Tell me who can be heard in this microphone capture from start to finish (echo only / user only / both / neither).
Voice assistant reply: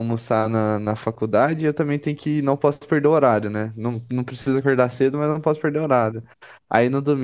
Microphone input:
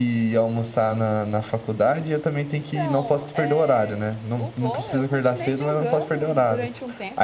both